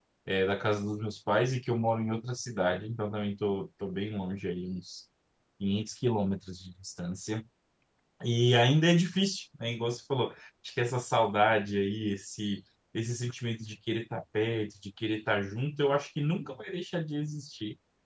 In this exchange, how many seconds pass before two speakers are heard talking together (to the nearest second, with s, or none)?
none